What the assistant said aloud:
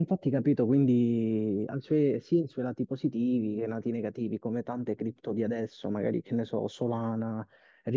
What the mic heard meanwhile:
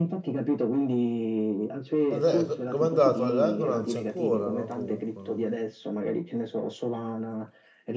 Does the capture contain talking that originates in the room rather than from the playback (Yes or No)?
Yes